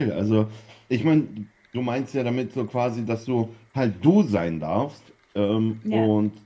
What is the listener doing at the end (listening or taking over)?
listening